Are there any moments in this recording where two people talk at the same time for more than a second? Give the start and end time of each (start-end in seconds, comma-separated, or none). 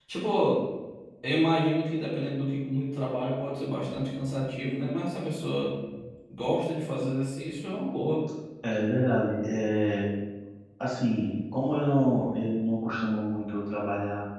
none